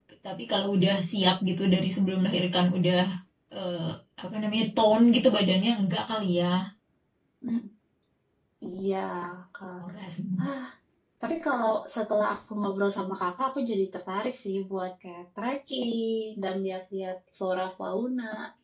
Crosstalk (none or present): none